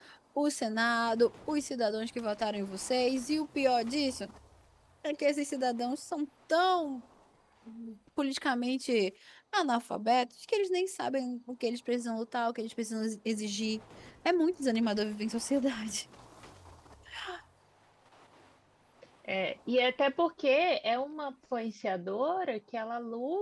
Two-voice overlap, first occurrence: none

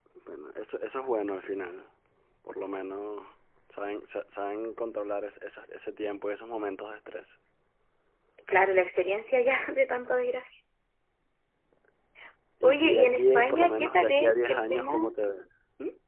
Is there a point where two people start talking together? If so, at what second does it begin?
12.6 s

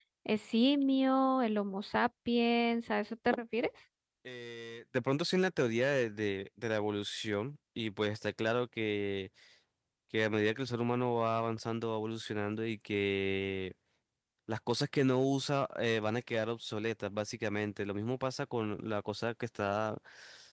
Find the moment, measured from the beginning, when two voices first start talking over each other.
none

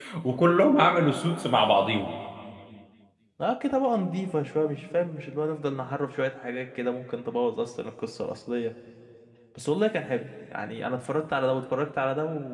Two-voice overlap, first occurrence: none

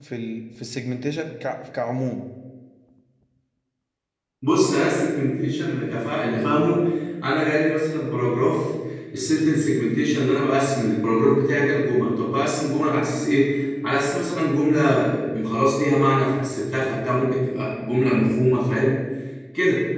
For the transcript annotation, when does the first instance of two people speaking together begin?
none

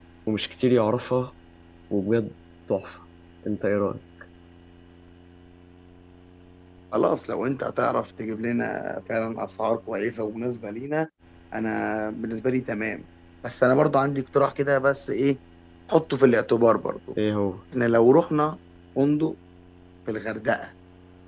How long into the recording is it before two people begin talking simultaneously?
none

